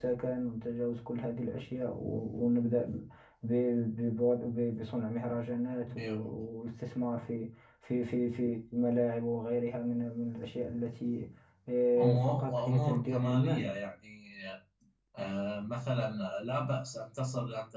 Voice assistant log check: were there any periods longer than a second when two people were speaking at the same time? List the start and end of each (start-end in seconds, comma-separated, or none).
12.0-13.7